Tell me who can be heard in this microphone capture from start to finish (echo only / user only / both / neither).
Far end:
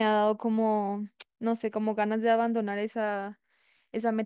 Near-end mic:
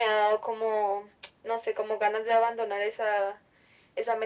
echo only